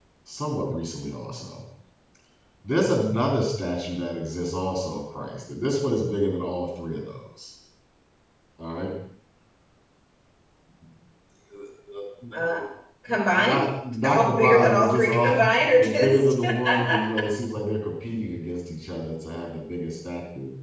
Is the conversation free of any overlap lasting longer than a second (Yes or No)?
No